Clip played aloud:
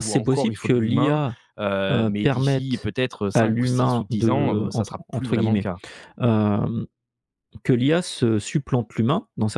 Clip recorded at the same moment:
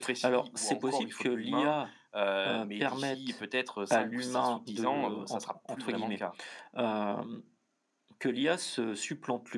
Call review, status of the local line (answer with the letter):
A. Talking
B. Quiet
B